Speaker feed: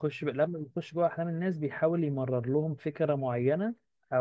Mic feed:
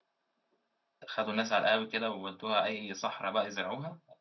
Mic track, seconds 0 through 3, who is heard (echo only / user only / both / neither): user only